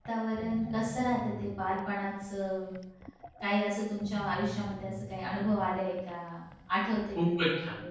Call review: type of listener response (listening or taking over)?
taking over